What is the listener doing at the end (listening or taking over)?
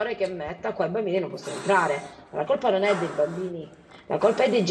listening